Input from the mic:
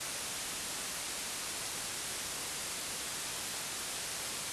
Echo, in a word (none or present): none